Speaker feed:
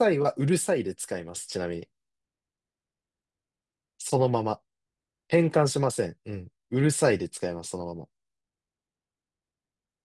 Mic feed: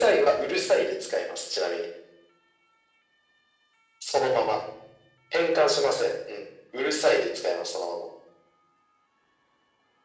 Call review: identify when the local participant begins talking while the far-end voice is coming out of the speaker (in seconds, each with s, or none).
none